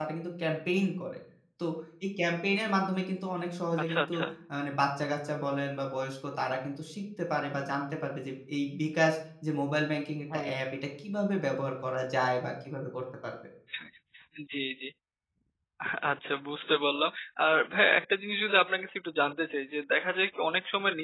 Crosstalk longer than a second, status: none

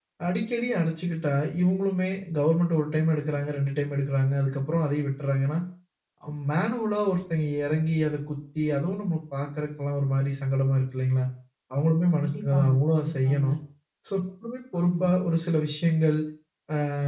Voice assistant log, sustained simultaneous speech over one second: present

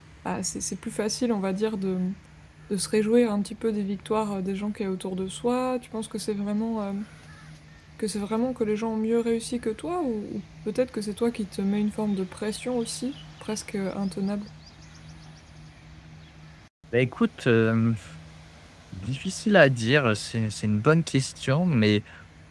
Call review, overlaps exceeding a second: none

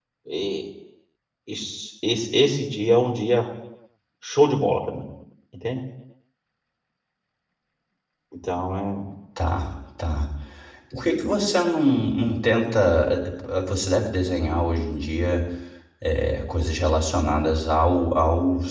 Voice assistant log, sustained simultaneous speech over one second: none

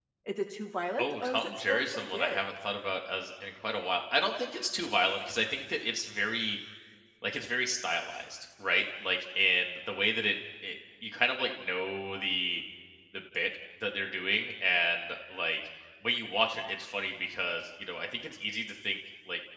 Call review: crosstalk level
present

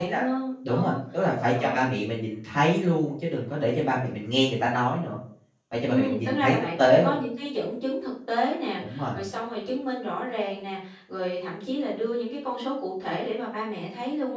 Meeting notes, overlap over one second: present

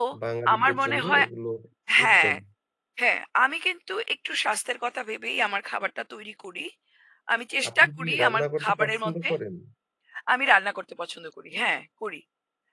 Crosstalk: present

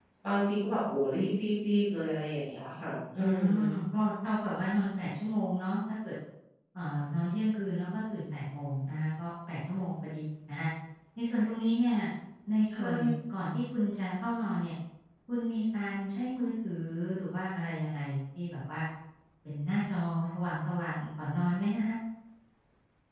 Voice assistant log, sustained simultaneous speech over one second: none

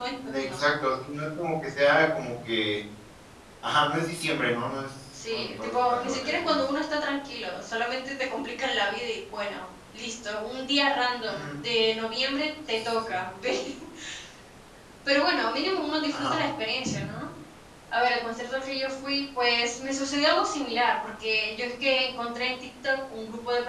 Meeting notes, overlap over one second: present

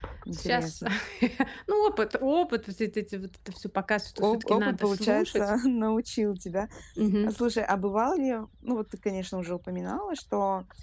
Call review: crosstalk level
present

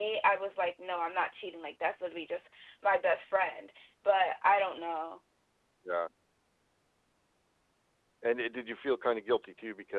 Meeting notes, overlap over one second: none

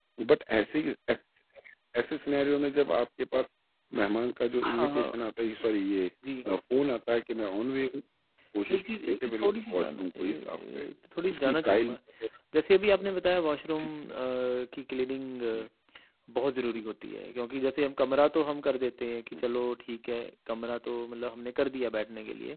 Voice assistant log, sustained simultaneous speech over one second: present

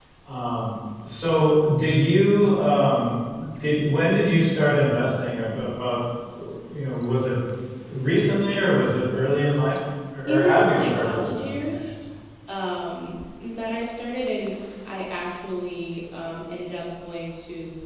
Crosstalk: present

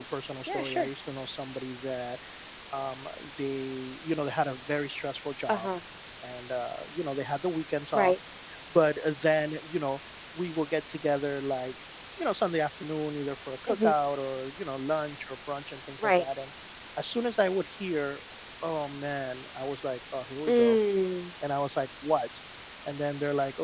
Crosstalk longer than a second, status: none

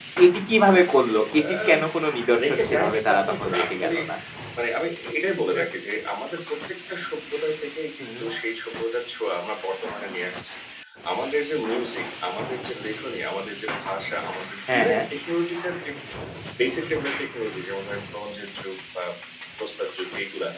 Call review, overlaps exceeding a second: present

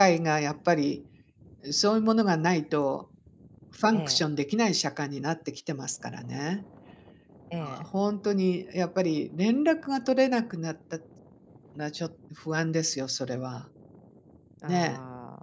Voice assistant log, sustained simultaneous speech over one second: none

